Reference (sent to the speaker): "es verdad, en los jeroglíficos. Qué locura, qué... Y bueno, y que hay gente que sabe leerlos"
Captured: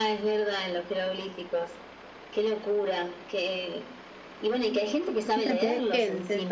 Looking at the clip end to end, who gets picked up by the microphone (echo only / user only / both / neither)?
both